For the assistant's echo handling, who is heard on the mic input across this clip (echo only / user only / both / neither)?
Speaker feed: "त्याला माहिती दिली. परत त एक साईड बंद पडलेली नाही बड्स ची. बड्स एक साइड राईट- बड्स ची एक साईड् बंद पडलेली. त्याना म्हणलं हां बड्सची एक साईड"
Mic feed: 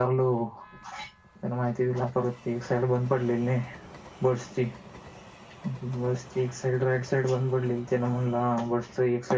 echo only